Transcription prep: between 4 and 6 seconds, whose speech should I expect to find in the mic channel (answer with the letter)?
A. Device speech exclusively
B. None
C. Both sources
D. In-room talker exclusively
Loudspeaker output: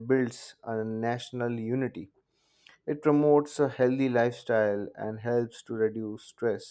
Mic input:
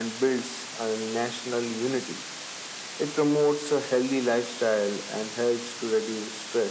A